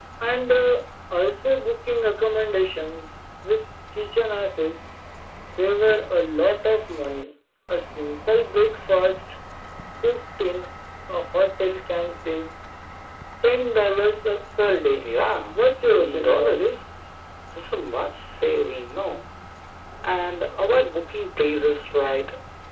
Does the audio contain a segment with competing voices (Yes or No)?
Yes